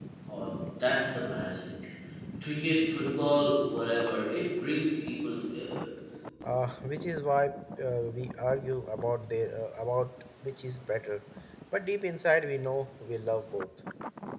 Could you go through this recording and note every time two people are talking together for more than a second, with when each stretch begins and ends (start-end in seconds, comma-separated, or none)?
none